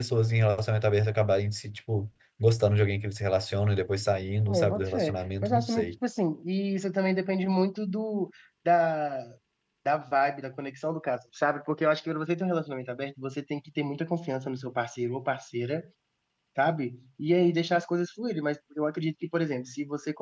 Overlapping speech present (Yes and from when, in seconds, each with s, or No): Yes, from 4.5 s